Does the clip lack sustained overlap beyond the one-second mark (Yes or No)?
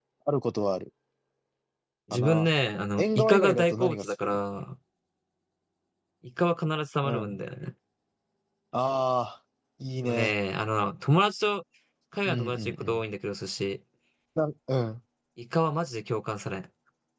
No